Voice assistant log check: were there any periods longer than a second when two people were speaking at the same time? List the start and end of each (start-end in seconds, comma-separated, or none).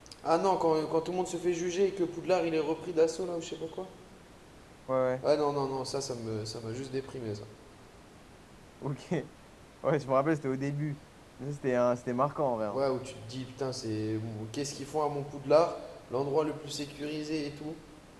none